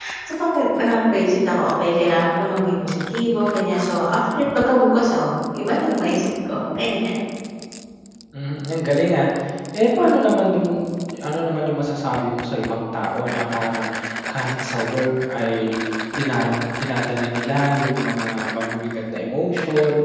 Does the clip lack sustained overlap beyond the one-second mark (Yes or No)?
Yes